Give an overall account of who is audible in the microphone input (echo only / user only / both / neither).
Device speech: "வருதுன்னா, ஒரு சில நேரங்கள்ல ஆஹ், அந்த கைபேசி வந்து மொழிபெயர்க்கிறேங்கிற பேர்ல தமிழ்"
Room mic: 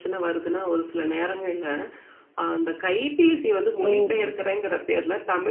both